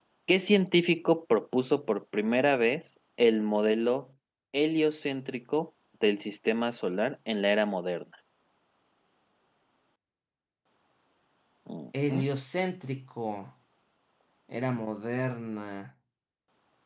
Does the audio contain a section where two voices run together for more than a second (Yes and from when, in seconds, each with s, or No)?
No